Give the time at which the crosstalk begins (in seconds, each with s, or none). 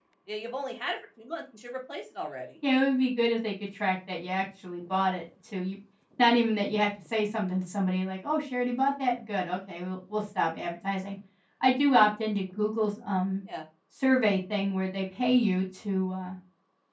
none